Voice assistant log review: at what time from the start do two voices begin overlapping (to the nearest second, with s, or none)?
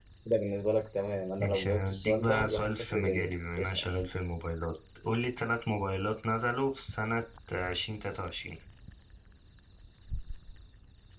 1 s